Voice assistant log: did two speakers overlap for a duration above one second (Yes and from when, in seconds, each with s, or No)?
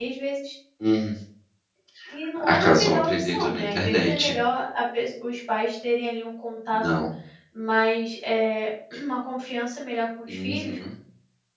Yes, from 2.4 s